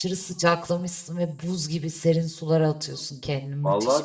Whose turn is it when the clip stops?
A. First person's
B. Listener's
B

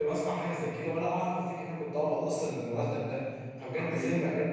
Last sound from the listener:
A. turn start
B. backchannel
B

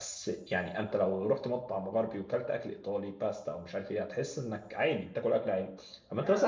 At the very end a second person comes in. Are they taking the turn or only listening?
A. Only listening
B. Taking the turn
A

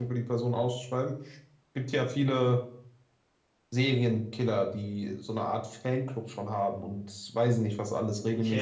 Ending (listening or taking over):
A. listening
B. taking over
B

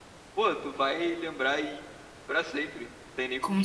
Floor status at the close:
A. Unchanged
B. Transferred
B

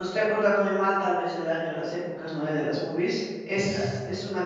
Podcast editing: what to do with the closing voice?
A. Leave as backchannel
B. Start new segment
A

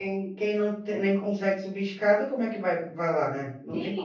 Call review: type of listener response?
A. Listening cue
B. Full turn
B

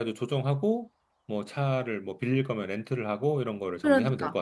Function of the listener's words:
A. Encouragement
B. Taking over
B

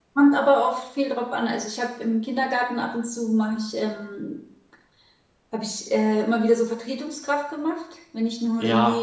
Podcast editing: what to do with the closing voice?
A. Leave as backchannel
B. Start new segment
B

